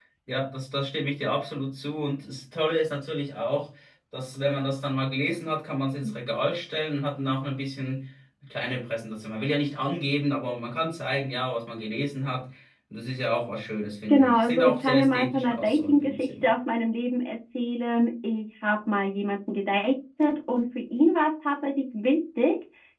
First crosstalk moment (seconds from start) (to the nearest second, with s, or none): 14 s